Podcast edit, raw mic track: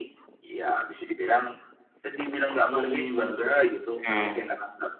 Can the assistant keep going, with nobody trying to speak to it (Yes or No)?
No